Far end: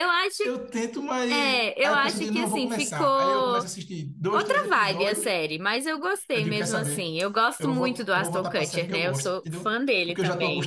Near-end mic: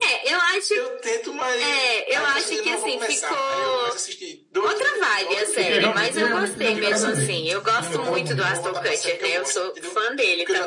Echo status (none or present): present